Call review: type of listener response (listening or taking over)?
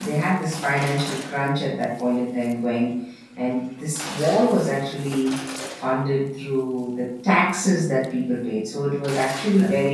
listening